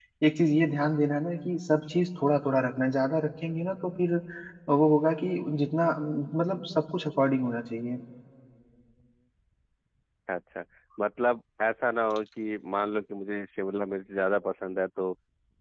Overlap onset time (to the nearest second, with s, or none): none